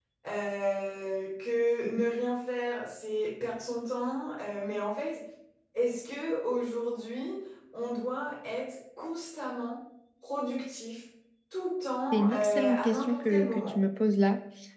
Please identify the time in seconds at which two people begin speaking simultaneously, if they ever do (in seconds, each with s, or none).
12.1 s